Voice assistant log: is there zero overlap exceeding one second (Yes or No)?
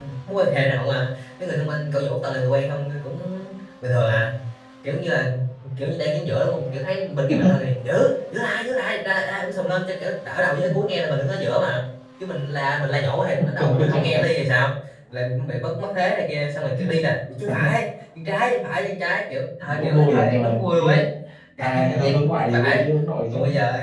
No